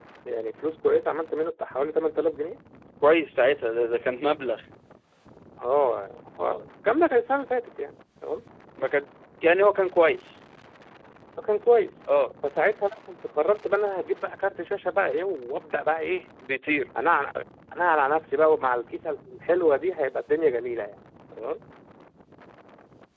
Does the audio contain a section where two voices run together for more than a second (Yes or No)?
No